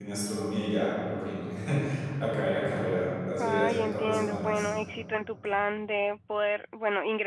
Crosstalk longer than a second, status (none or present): present